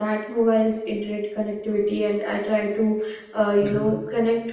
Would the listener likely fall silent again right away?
Yes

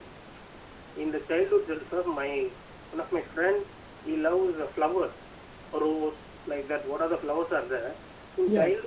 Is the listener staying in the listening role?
Yes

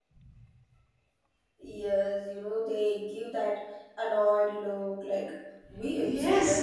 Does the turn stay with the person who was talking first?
No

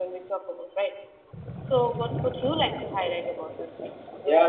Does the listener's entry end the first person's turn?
Yes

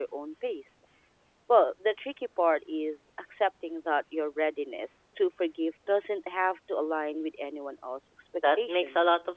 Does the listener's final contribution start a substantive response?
Yes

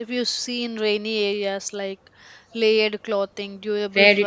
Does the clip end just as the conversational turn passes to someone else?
Yes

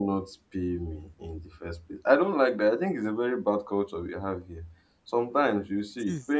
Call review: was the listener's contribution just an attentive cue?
Yes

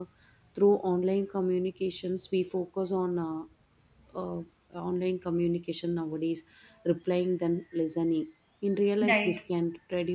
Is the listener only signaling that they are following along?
Yes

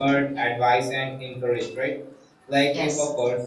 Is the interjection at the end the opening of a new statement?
No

